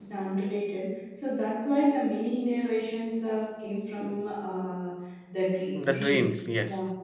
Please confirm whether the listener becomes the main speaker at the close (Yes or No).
Yes